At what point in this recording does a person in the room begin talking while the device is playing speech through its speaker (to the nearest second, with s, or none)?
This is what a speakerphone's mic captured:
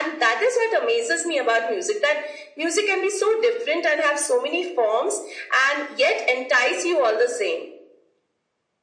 none